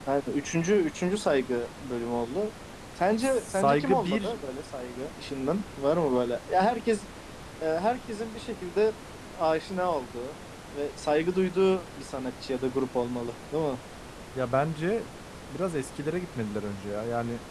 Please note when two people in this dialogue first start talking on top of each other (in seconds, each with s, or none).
3.2 s